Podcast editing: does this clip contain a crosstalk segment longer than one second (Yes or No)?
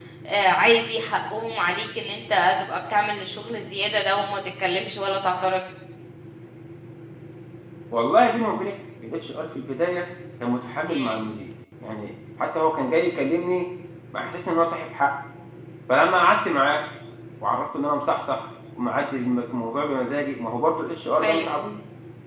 No